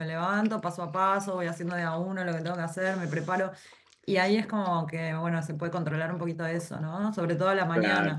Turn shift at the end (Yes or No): Yes